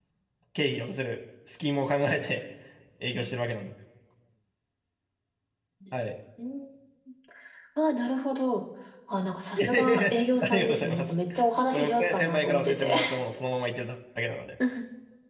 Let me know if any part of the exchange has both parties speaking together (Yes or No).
Yes